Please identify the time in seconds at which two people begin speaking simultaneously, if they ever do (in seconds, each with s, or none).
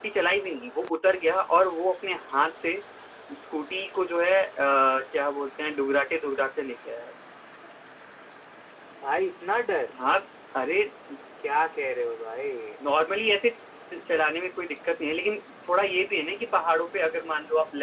none